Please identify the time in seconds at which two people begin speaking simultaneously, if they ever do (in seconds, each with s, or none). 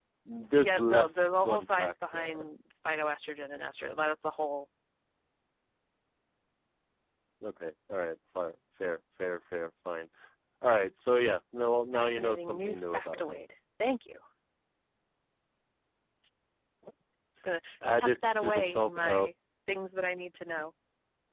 0.6 s